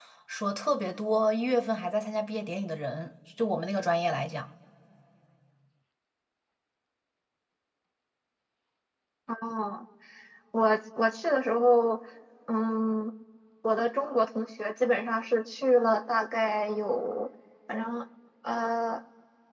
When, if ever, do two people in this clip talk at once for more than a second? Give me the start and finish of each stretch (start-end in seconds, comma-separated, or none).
none